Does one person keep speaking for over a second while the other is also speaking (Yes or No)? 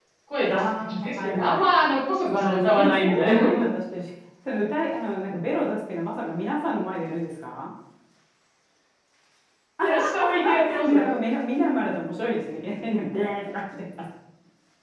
Yes